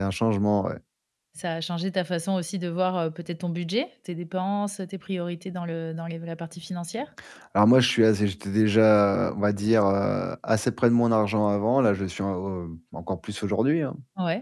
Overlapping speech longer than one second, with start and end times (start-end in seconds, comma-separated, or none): none